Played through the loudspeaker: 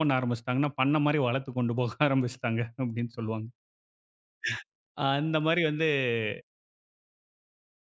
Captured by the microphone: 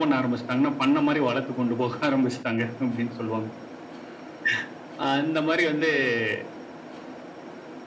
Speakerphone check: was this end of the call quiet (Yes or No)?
Yes